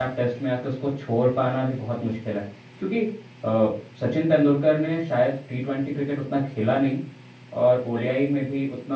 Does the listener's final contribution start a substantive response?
No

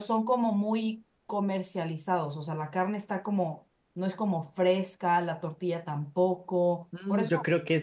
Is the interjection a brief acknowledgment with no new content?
No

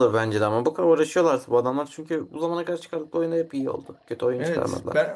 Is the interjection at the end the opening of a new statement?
Yes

